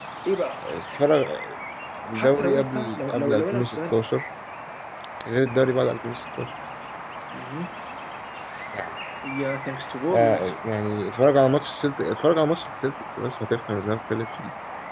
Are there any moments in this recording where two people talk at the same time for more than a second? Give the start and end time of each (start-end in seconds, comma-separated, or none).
2.1-4.0